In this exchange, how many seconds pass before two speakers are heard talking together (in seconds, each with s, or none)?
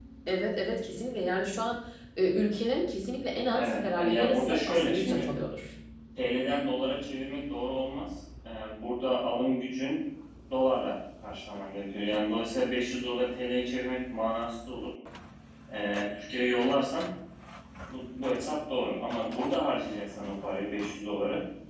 3.4 s